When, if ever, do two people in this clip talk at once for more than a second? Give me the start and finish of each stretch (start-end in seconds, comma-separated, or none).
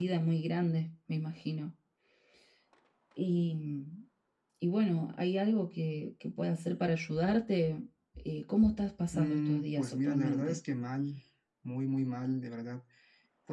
9.1-10.6